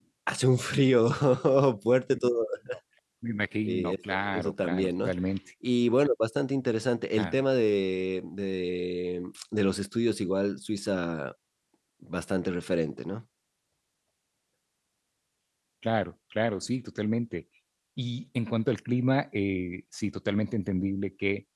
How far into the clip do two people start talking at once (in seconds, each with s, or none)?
3.7 s